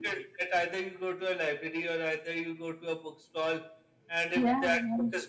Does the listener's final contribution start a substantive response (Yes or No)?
No